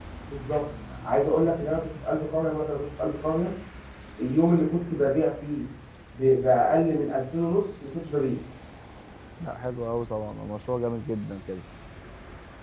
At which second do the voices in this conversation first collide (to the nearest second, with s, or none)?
none